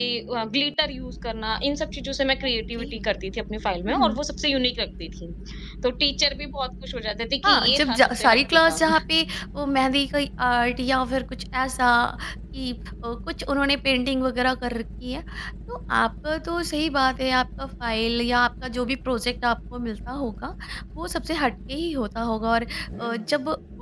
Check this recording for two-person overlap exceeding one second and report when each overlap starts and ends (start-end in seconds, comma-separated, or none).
7.4-8.9